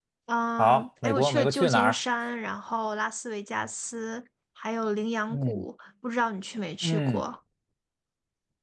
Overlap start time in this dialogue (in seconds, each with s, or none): 0.6 s